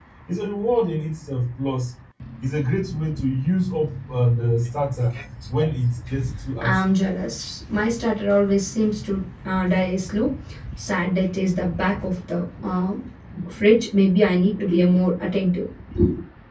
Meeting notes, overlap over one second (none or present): none